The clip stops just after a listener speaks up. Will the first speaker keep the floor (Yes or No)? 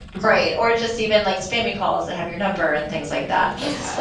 No